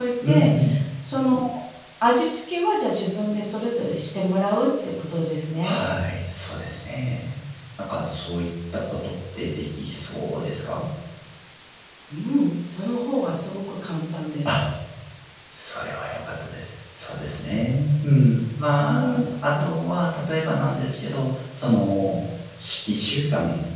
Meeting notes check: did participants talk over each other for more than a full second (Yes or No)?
No